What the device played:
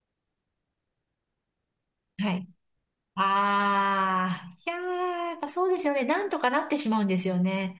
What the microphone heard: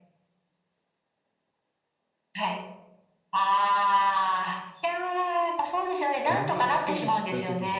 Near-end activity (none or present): present